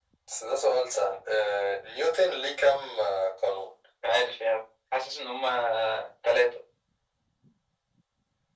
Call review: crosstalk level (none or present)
none